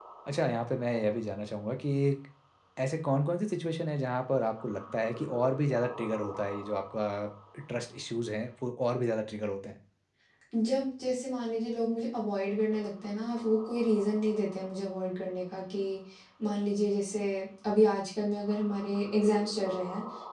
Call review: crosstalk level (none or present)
none